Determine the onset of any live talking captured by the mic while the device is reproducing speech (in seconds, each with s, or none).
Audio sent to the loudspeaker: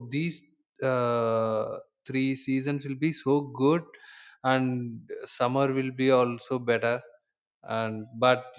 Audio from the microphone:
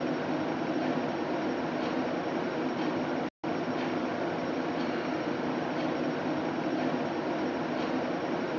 none